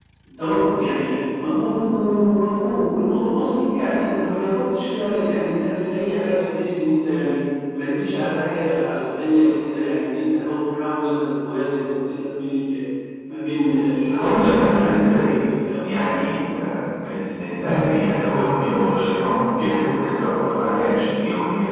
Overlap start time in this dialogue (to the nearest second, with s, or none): 14 s